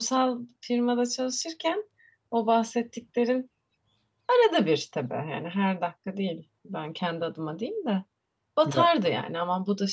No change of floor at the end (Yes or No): Yes